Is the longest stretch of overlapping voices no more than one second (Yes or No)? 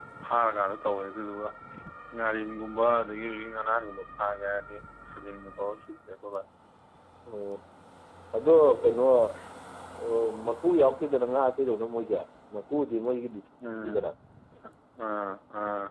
Yes